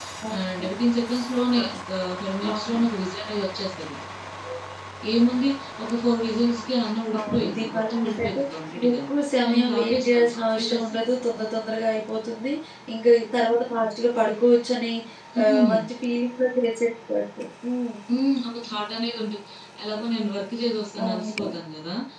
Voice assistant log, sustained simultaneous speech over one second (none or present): present